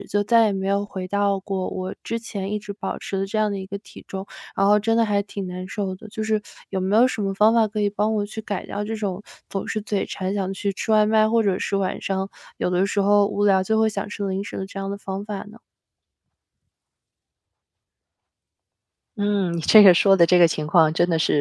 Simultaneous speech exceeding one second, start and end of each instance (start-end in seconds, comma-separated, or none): none